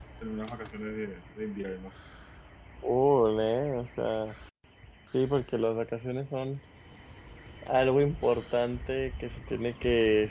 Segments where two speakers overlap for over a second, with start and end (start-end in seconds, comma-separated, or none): none